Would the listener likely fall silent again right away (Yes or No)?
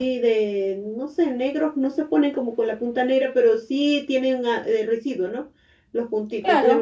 Yes